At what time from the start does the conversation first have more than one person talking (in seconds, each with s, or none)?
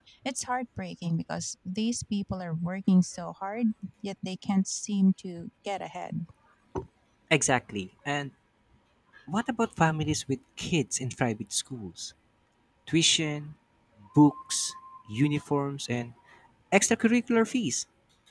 none